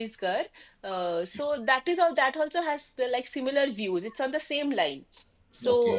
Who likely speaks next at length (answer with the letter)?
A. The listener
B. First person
B